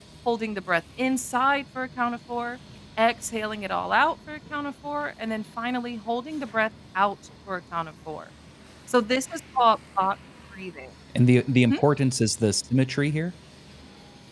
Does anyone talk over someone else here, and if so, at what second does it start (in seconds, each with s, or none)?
none